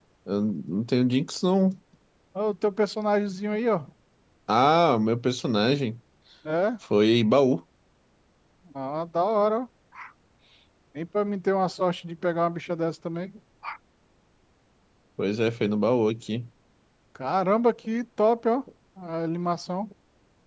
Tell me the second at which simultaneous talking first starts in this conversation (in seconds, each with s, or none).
none